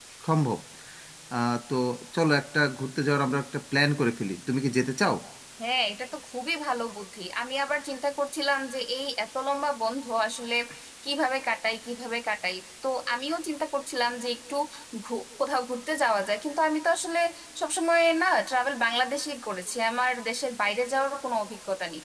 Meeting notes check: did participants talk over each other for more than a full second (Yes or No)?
No